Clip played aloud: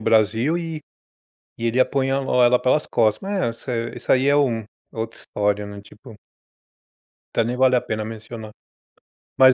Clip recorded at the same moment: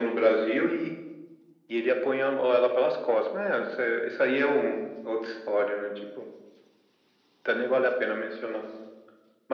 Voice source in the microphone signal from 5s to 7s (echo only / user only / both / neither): echo only